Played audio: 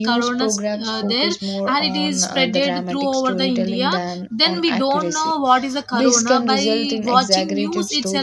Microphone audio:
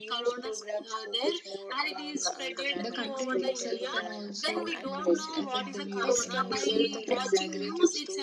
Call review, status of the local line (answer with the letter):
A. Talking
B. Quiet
A